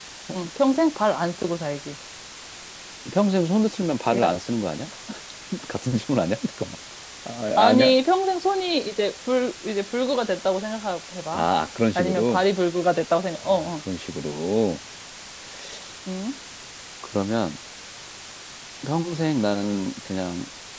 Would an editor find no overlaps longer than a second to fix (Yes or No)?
Yes